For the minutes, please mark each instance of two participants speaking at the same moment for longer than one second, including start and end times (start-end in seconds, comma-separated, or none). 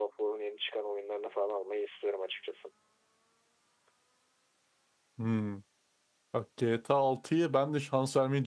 none